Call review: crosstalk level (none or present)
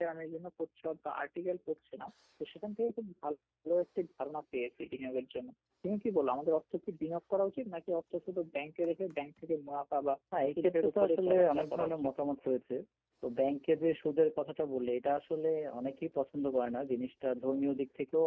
present